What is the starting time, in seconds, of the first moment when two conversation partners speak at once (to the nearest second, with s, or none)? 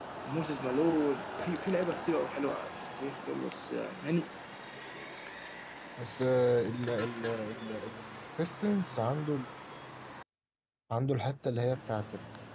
none